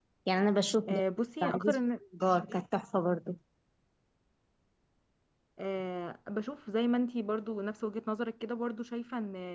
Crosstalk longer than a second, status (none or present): none